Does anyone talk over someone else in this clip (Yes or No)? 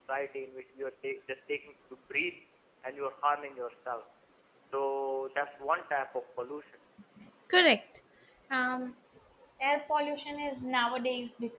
No